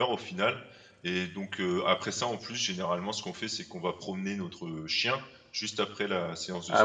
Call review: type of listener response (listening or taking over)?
taking over